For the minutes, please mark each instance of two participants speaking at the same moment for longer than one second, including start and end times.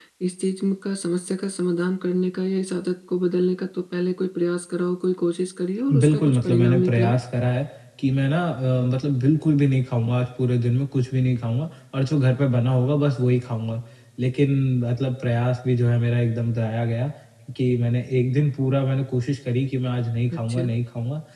5.9-7.2

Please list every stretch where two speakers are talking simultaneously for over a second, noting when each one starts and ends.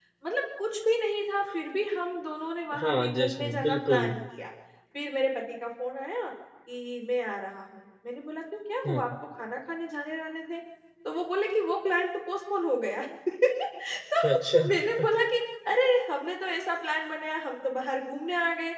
2.8-4.1

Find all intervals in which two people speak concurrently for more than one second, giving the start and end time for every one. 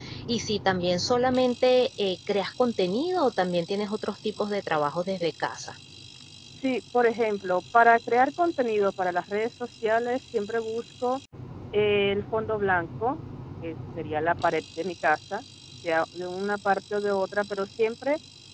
none

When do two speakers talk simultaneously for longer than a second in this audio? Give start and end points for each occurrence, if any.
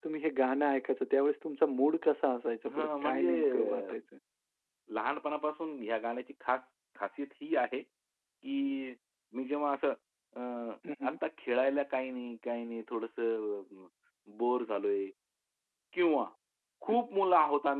2.7-3.9

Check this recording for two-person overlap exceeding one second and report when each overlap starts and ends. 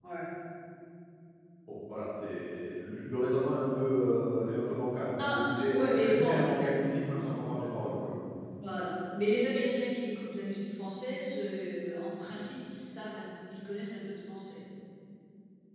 5.2-6.5

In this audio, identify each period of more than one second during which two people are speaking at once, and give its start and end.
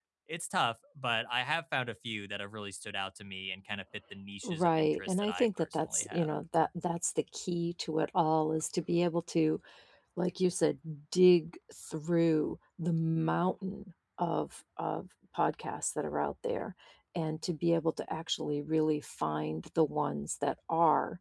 4.4-6.4

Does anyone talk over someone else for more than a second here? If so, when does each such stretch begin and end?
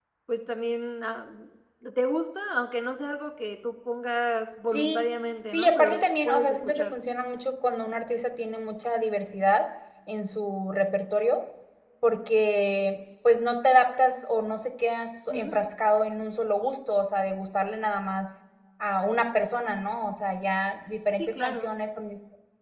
5.5-7.0

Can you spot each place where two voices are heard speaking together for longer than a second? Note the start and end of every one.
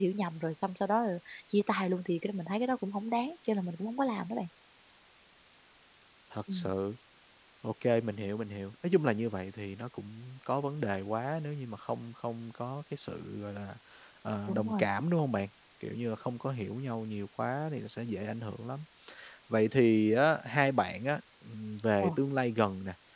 none

